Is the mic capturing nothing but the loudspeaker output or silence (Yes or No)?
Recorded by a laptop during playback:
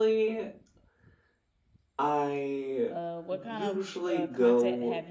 No